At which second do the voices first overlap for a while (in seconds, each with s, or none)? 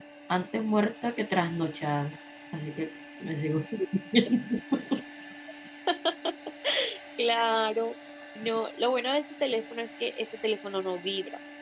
none